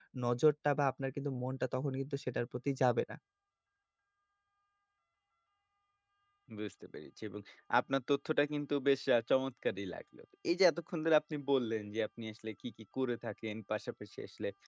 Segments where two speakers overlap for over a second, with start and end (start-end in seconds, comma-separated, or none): none